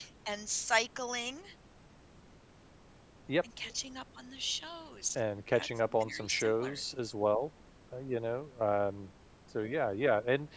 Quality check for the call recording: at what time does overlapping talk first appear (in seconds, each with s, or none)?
5.6 s